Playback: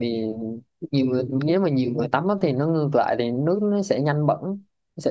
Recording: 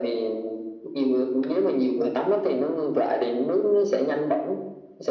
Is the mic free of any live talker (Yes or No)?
Yes